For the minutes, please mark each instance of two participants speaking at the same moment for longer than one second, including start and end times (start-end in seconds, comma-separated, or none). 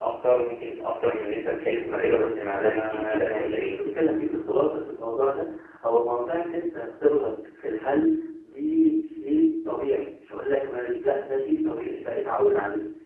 1.9-3.7